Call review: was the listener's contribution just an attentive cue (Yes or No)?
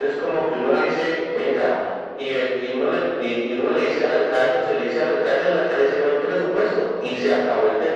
Yes